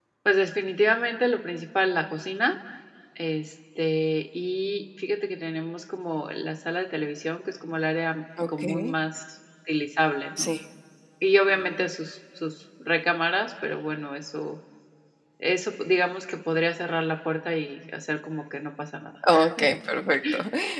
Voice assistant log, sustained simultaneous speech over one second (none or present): none